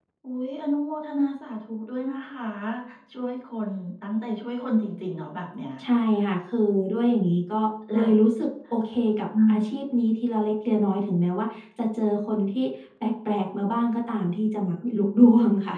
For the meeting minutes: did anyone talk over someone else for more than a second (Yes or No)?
No